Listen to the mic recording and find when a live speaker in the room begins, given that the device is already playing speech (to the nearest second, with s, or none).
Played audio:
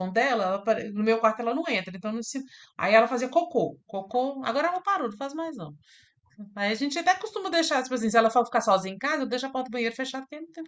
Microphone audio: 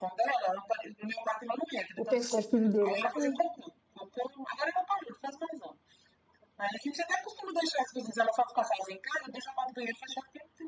2 s